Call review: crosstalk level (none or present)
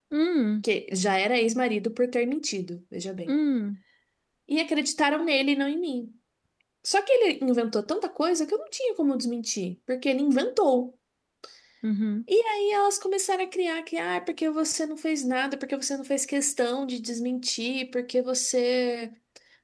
none